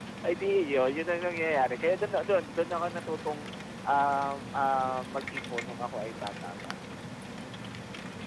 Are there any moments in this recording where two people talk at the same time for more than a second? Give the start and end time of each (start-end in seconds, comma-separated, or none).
none